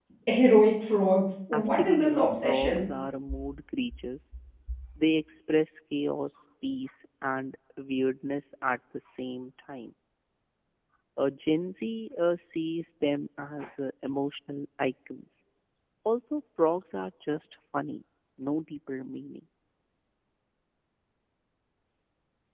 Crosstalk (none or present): present